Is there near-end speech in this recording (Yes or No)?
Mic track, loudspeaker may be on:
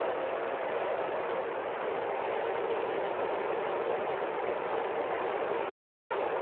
No